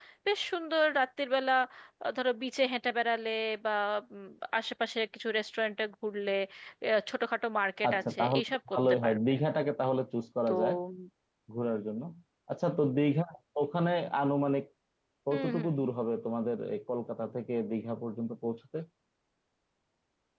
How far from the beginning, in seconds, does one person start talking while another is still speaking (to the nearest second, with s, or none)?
8 s